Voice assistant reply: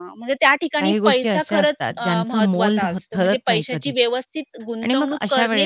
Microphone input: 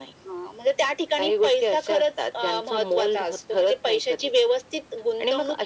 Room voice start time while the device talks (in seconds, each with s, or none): none